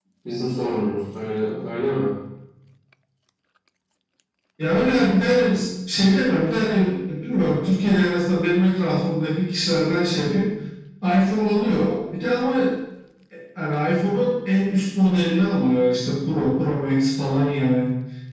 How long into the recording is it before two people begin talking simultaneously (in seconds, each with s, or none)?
none